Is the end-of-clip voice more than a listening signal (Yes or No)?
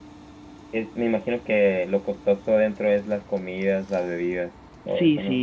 Yes